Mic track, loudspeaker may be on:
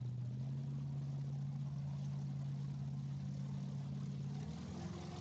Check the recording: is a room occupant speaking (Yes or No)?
No